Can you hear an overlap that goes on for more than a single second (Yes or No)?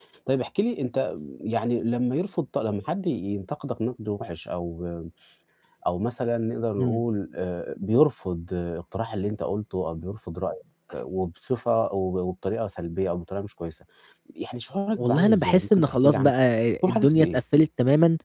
Yes